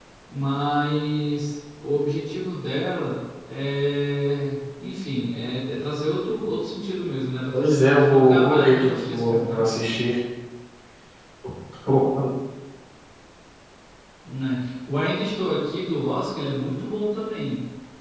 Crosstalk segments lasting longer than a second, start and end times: 7.5-9.6

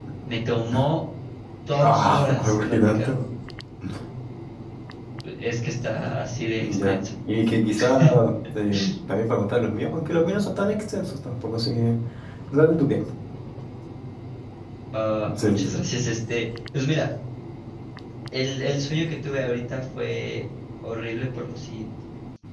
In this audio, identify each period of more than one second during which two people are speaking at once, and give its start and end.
1.8-3.2

